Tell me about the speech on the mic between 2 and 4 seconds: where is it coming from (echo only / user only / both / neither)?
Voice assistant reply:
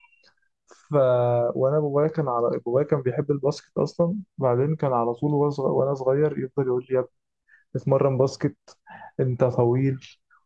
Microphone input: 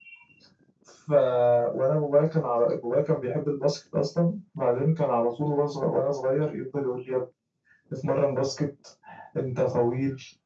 echo only